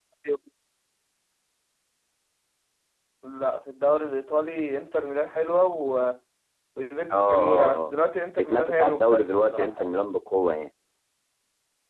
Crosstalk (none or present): present